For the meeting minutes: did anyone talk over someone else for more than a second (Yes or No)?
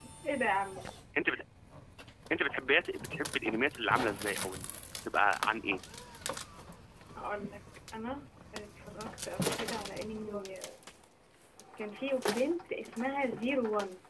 No